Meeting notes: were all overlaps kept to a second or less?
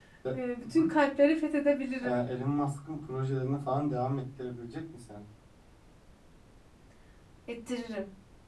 Yes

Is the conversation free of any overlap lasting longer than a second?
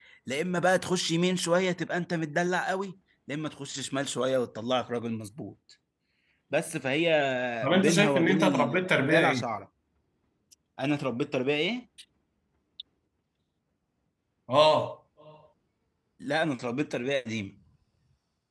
No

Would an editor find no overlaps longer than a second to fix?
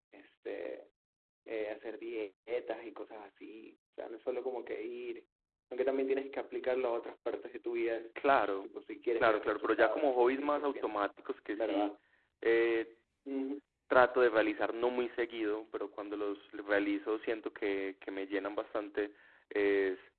No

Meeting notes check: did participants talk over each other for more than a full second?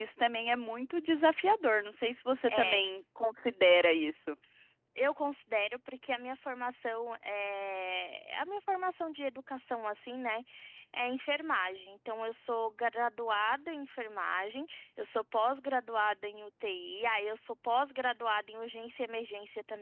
No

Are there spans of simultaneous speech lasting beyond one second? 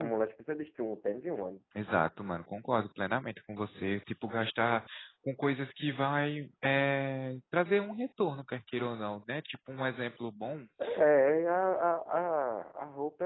No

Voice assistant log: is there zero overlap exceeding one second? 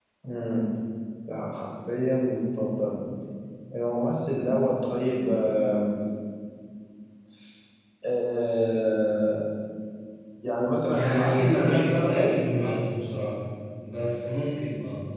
No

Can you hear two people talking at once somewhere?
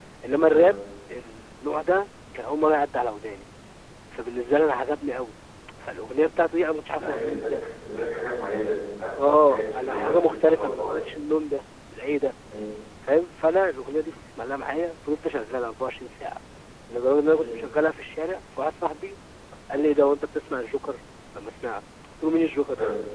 Yes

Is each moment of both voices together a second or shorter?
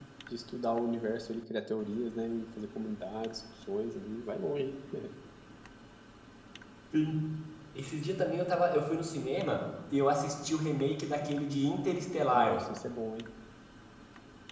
Yes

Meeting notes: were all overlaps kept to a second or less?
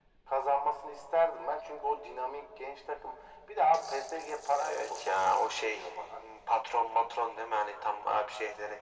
No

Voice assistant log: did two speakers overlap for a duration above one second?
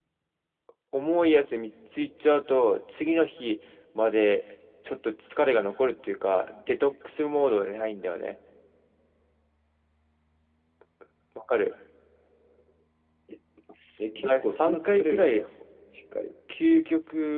Yes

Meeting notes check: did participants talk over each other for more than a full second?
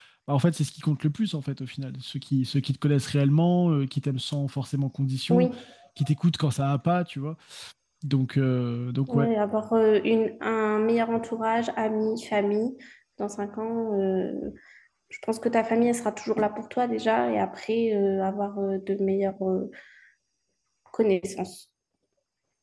No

